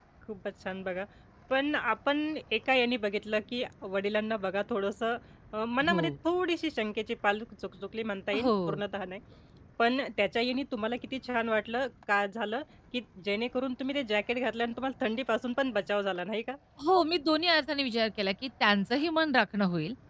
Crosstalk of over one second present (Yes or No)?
No